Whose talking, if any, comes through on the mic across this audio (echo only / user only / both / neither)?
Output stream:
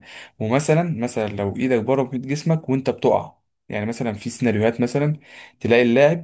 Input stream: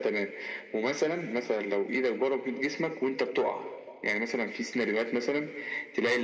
echo only